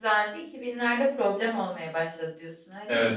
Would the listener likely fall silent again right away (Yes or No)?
No